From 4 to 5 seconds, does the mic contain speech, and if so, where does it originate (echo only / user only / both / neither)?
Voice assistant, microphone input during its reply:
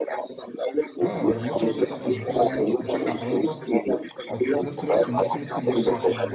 both